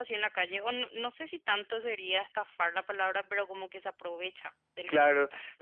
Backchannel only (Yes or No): No